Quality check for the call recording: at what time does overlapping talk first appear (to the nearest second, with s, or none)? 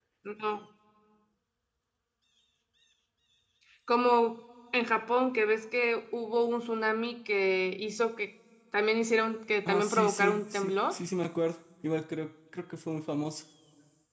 10 s